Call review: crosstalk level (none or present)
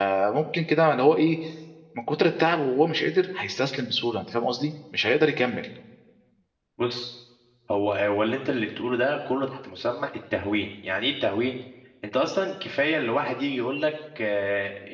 none